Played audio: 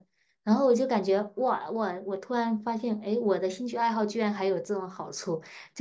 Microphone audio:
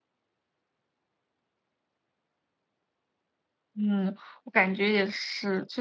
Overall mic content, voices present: user only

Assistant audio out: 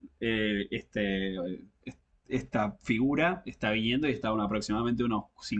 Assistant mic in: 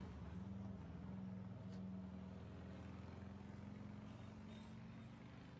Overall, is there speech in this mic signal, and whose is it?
neither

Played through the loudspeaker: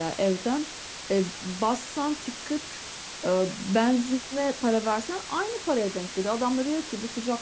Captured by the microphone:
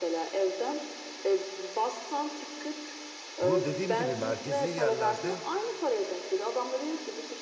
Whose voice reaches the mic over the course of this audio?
both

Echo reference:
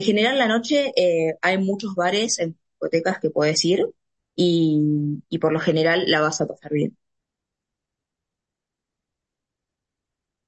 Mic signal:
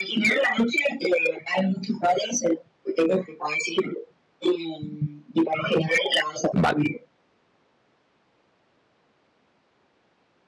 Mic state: both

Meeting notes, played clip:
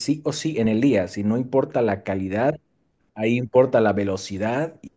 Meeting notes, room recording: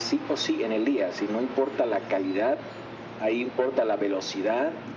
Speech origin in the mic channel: echo only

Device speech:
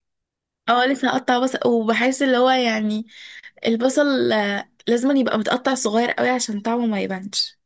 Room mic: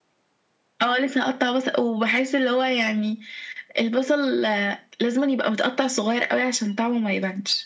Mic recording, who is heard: echo only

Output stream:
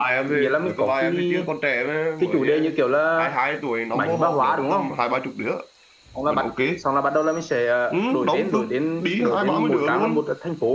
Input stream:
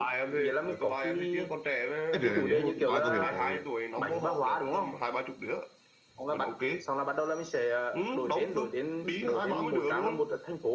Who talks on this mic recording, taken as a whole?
both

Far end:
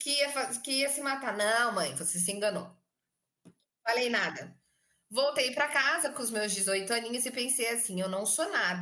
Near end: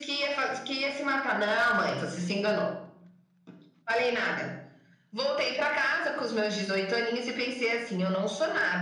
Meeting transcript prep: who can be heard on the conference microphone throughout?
echo only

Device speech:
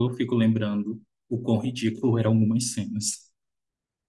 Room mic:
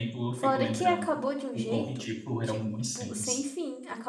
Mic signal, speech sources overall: both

